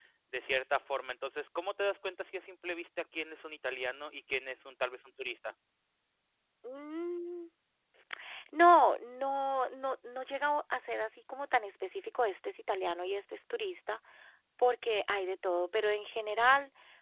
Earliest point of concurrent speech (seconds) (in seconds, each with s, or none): none